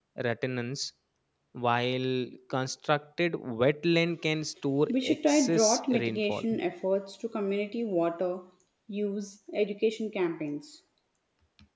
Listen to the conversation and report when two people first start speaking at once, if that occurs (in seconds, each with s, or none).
4.9 s